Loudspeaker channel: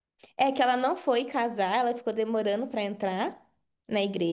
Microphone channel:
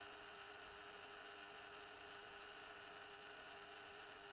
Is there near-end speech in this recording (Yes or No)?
No